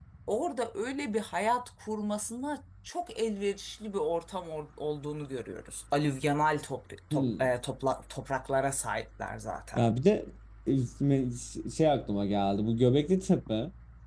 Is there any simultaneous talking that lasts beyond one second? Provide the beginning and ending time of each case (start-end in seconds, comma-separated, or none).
none